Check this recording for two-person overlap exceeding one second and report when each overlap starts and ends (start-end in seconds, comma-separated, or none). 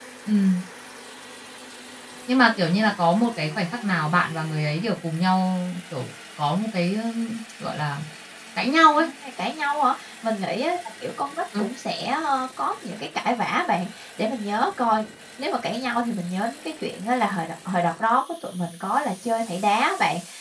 none